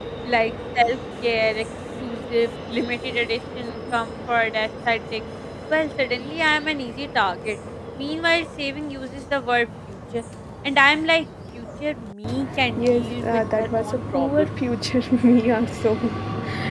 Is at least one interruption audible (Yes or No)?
Yes